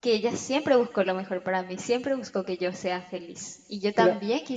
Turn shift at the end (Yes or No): No